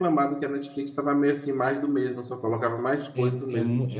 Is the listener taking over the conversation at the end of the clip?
Yes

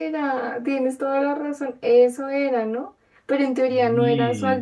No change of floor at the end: Yes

